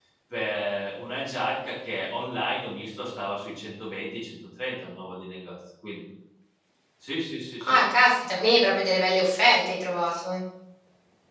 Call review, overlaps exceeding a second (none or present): none